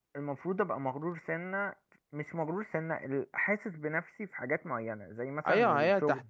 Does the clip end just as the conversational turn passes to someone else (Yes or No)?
Yes